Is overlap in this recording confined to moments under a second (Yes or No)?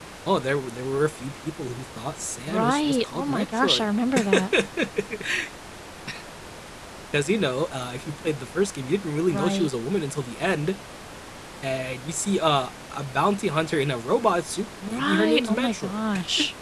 No